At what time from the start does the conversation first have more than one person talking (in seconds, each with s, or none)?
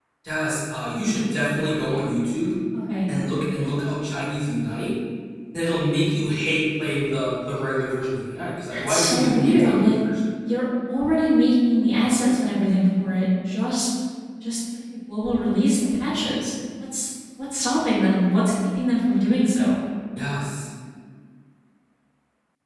8.7 s